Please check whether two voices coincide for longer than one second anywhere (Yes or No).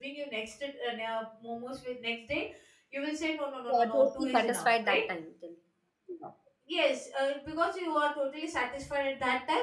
Yes